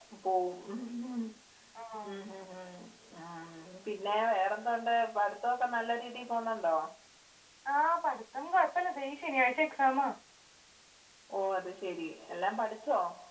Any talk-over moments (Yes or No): No